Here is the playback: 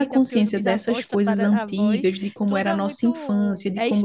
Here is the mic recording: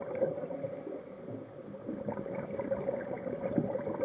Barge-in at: none

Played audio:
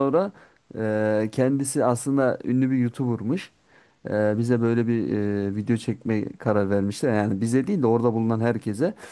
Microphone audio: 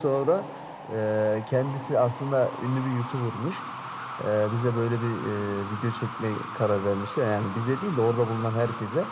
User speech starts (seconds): none

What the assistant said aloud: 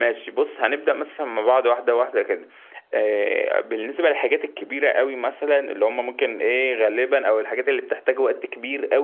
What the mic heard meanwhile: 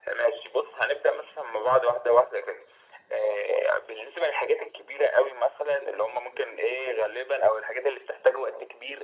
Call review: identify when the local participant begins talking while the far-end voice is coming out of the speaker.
none

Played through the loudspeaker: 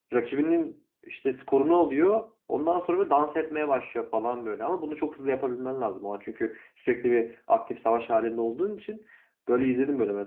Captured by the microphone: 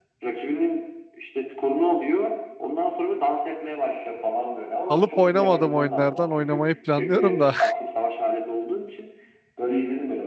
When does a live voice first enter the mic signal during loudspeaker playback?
5 s

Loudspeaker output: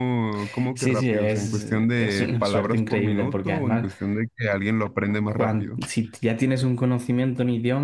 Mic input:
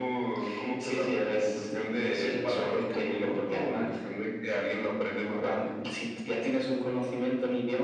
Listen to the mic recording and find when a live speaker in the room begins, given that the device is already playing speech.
none

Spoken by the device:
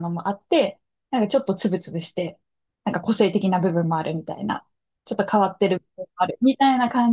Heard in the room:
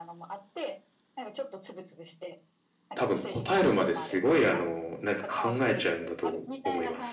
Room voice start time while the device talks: 3 s

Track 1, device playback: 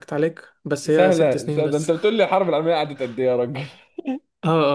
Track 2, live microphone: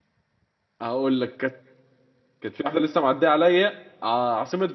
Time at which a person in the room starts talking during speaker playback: 1 s

